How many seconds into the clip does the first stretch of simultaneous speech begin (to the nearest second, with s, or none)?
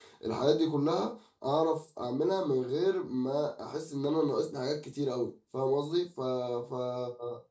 none